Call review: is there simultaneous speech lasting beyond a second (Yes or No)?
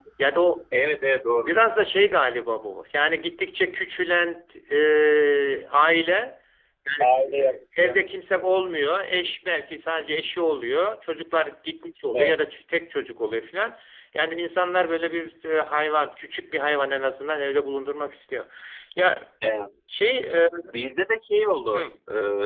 No